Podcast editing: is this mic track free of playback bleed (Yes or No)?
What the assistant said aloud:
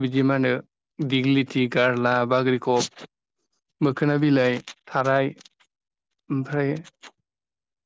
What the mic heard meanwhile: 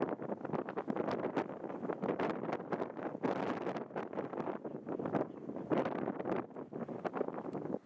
Yes